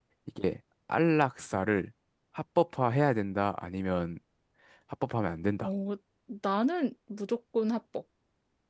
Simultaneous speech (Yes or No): No